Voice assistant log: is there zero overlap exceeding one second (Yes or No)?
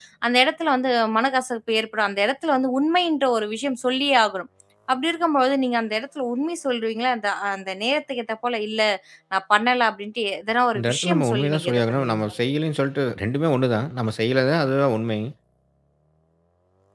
No